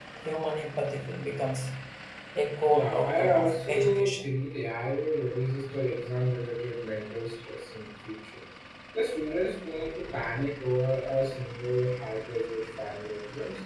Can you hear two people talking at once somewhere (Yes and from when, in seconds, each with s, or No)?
Yes, from 2.7 s